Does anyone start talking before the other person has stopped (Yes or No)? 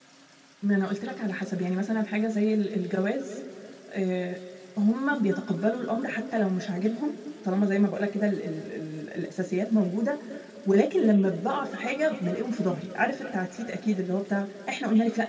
No